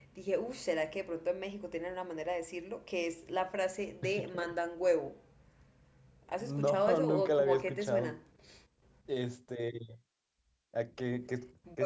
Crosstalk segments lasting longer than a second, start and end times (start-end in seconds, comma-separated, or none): 6.4-8.2